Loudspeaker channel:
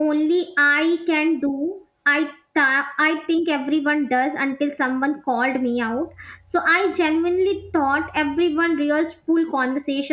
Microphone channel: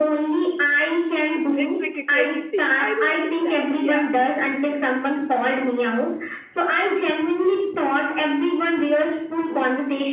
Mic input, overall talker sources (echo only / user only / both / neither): both